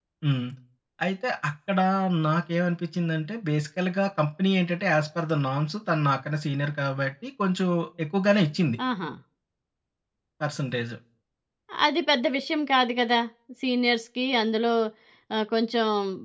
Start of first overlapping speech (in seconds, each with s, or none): none